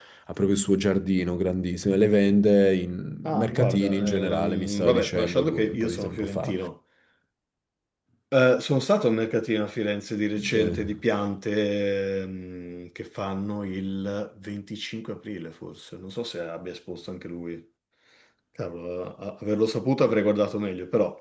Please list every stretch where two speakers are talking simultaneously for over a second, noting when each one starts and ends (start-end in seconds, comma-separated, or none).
3.2-6.5